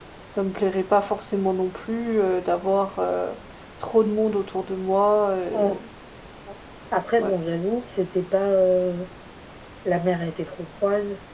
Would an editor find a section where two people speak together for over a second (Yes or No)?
No